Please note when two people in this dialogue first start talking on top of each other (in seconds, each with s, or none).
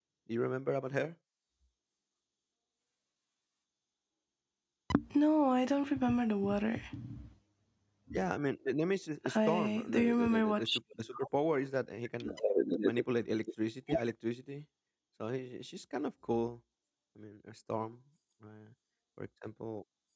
9.3 s